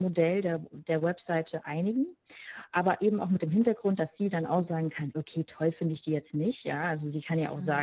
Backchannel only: Yes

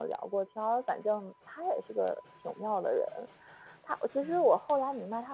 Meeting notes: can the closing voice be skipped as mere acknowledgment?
Yes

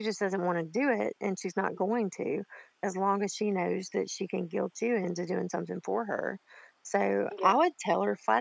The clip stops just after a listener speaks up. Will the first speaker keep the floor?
Yes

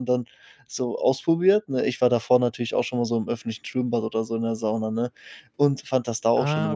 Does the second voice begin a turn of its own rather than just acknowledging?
No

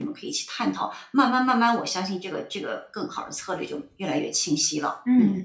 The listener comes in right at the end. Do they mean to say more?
Yes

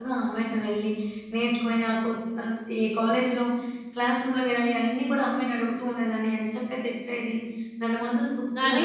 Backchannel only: No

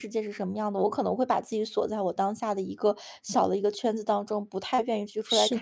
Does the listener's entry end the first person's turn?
No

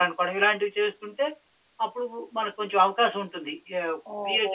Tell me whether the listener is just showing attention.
No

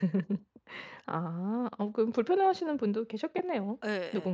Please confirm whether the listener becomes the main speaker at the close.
Yes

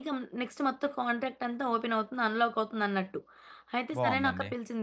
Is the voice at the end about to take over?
No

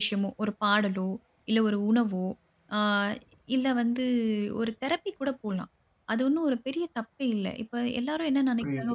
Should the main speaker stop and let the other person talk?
No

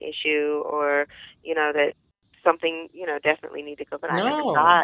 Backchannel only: Yes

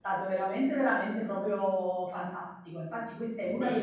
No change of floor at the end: Yes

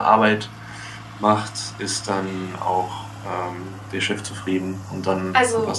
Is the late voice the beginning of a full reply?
Yes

